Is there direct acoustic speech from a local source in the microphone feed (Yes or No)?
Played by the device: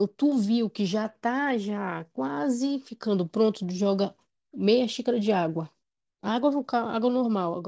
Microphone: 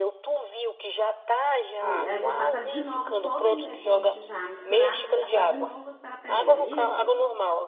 Yes